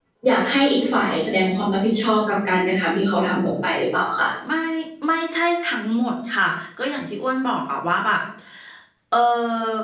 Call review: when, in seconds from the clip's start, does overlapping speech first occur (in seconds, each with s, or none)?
none